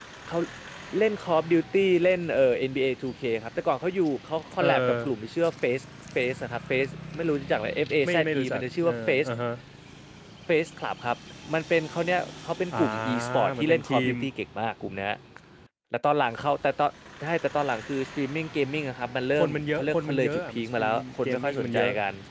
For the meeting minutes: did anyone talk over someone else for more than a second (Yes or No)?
Yes